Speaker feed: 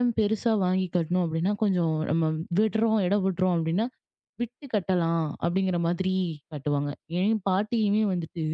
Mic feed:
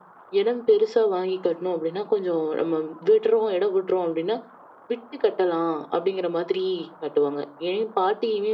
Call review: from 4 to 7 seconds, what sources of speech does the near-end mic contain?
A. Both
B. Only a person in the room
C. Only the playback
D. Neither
C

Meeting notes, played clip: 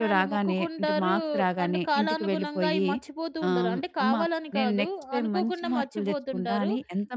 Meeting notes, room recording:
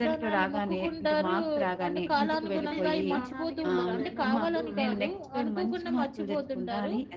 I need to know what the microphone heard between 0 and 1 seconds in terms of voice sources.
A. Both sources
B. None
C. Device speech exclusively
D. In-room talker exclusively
C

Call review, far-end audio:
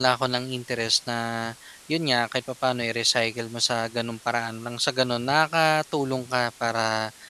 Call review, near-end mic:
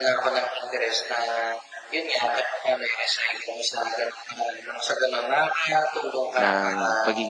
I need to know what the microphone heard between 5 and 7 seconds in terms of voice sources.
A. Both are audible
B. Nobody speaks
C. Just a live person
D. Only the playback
A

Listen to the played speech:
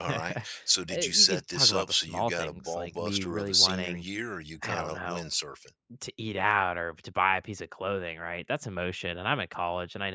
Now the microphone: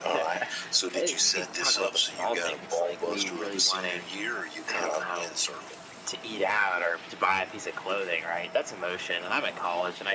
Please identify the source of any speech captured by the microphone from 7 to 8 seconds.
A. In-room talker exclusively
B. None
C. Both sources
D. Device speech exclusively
D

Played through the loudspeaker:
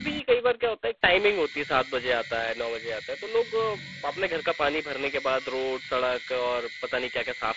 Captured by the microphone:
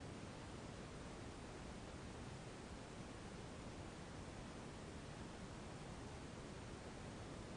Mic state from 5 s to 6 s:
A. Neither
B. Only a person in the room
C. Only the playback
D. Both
A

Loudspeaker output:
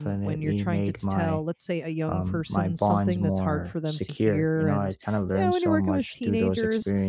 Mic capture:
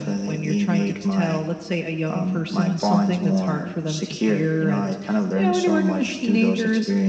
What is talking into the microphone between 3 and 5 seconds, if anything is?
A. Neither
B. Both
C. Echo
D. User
C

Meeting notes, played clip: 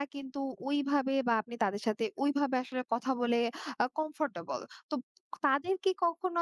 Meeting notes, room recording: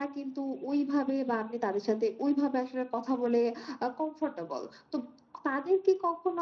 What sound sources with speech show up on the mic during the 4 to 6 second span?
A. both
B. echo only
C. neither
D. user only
B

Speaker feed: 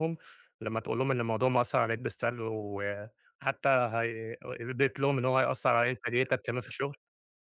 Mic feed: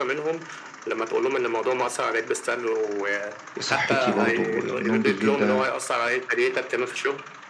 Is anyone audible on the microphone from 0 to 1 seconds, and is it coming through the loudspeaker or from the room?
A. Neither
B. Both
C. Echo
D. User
C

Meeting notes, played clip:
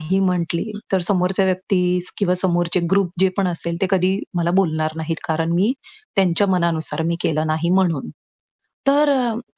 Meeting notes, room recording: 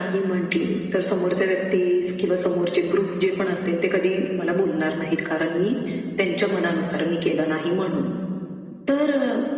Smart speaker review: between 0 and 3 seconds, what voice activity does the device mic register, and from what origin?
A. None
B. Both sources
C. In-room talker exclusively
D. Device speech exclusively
D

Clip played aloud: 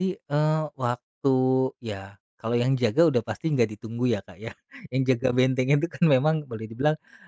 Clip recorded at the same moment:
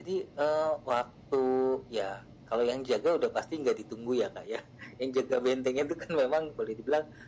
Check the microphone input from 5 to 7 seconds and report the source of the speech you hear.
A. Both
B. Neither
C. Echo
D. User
C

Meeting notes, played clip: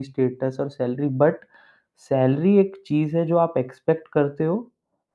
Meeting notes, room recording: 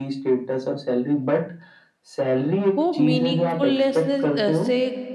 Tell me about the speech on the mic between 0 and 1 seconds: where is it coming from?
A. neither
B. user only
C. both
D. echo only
D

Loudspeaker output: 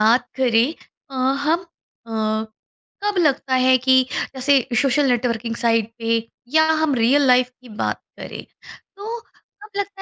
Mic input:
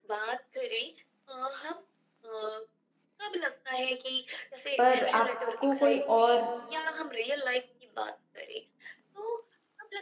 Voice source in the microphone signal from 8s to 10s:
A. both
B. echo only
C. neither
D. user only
B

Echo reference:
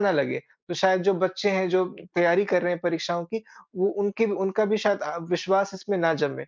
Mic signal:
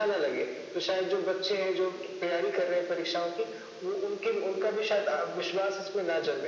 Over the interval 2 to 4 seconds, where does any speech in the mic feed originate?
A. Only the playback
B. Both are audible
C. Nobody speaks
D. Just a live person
A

